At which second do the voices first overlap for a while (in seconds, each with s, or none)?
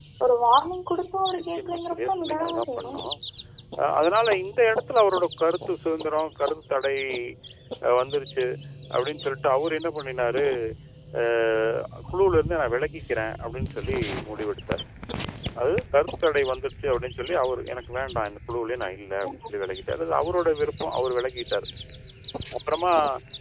1.4 s